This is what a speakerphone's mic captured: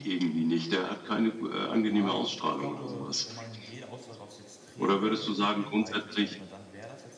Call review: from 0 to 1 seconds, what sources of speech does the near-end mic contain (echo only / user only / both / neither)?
echo only